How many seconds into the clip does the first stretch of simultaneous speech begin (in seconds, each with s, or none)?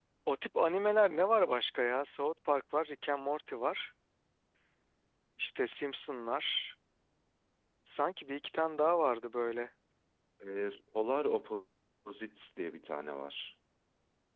none